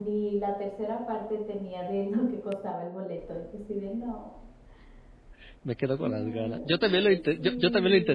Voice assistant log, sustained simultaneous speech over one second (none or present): present